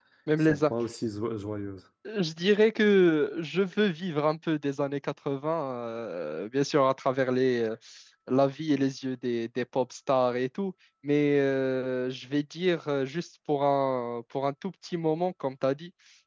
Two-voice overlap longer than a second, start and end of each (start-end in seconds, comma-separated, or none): none